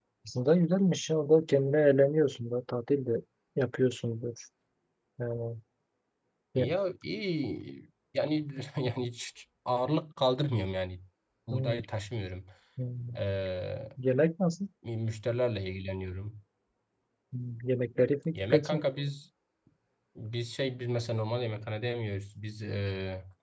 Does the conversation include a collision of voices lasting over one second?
No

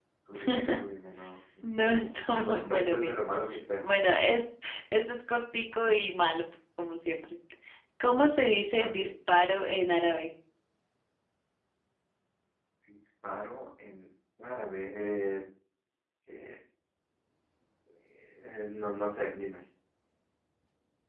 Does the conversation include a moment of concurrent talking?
Yes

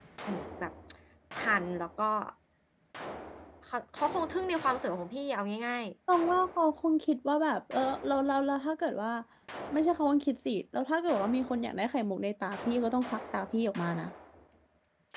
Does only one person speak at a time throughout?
Yes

